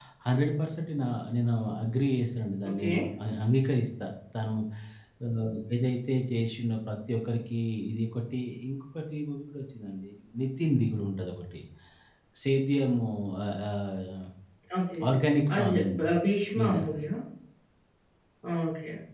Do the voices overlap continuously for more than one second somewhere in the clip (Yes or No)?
No